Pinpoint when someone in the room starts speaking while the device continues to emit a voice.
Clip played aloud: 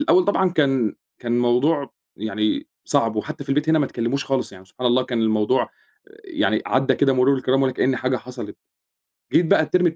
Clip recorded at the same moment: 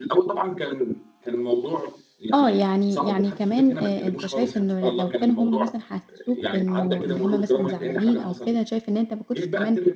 2.3 s

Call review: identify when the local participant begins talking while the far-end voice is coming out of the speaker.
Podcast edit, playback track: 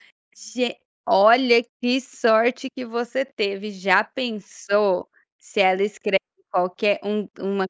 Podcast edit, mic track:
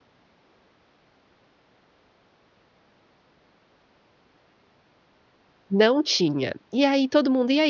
5.7 s

